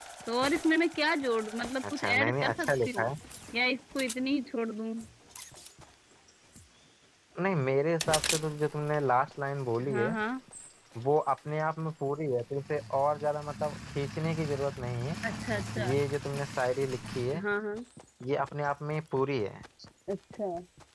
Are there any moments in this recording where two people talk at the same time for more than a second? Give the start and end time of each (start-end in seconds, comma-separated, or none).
1.9-3.1